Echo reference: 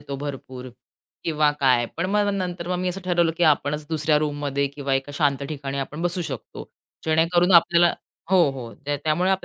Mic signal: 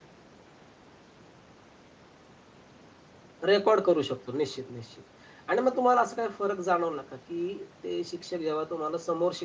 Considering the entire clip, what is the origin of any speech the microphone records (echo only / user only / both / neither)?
user only